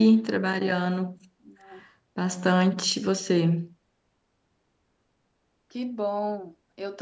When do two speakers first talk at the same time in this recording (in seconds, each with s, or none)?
none